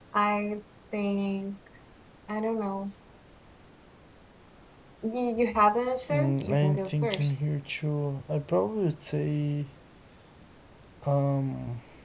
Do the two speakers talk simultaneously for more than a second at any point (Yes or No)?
Yes